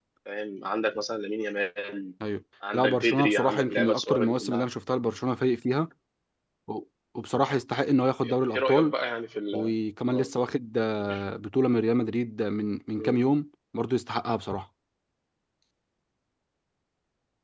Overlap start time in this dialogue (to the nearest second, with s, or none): 3 s